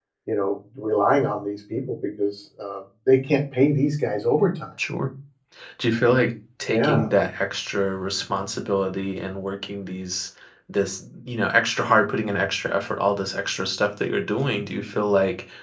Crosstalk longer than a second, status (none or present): none